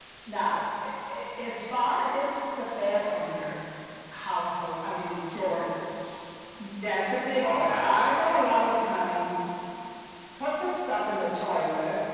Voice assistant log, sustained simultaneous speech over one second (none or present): present